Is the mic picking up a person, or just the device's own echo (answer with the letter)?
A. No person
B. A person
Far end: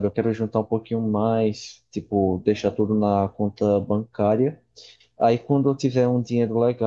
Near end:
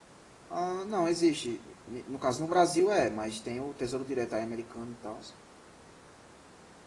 B